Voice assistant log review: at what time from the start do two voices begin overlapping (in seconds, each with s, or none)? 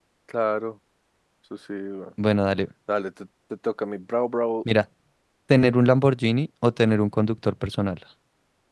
none